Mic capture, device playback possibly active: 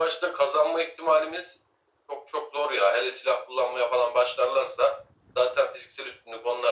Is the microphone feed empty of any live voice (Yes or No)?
Yes